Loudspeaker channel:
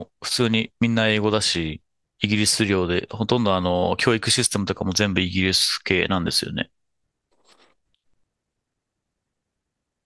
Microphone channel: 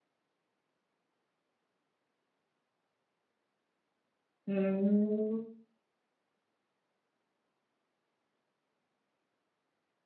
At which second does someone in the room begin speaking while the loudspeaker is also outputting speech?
4.5 s

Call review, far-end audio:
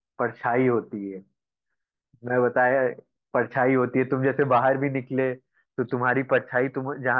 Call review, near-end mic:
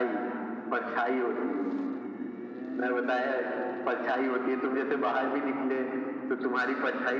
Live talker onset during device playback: none

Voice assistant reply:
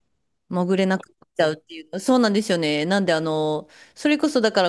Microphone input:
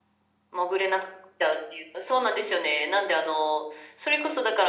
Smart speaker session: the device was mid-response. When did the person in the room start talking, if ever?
none

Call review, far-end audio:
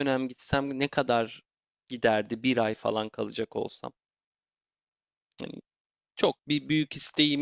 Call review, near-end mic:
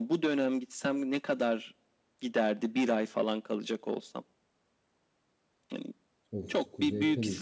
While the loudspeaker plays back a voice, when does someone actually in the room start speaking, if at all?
6.3 s

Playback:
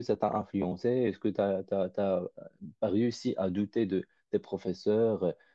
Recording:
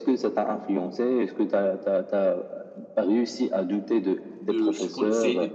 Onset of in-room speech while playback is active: 4.4 s

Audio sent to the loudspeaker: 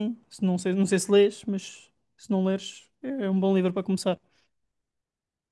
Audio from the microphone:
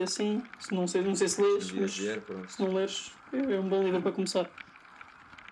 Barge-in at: 1.5 s

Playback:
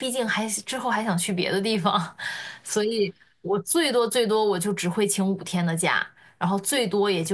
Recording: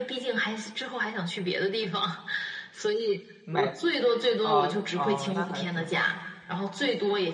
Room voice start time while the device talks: 3.4 s

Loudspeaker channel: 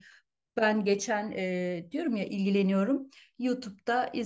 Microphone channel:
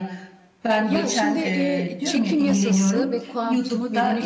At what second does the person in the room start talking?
0.9 s

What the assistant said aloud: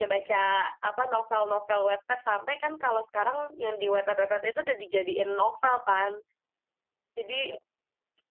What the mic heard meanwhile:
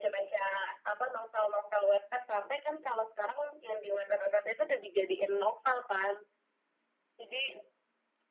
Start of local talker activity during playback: none

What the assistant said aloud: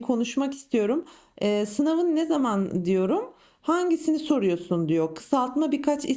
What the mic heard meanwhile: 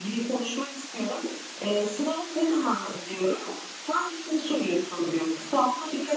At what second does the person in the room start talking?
none

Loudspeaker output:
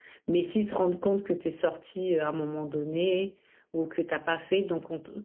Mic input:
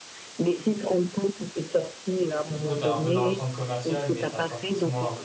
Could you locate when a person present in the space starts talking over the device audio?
2.5 s

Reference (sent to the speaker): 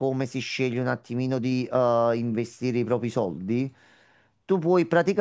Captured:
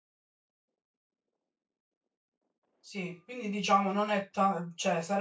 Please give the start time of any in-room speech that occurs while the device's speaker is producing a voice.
2.8 s

